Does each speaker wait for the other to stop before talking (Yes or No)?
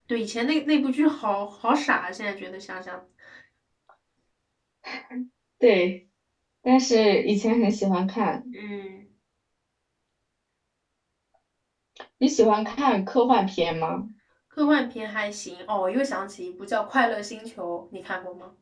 Yes